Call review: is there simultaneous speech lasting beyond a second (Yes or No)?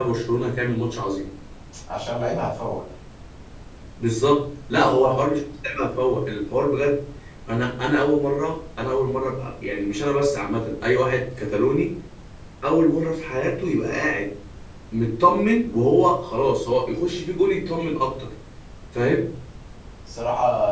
No